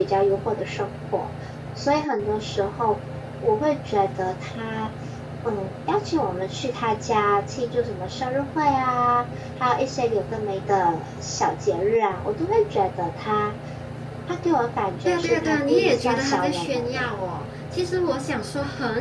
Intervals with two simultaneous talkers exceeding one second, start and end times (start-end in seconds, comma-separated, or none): 15.1-17.1